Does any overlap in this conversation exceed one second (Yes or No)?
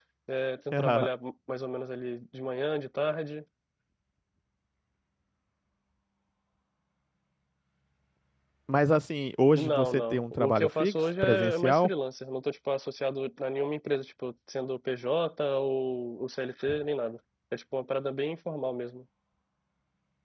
Yes